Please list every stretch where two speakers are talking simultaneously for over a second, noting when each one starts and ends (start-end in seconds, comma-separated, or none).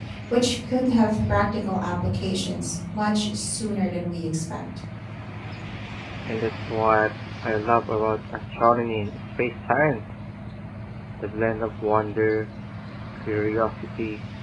none